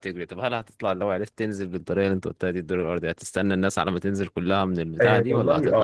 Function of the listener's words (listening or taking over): taking over